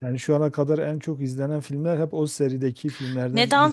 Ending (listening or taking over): taking over